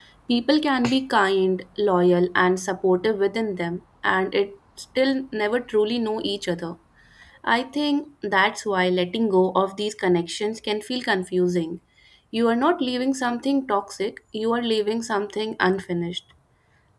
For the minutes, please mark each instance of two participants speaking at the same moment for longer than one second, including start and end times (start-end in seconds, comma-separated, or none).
none